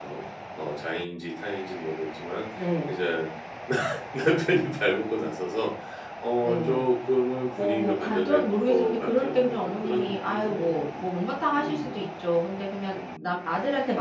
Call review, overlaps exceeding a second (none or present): present